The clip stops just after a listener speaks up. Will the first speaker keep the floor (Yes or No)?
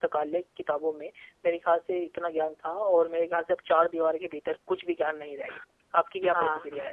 No